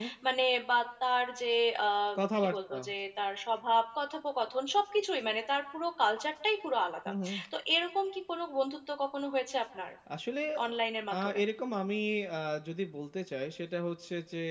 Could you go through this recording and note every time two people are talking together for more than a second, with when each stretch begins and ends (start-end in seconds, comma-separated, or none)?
none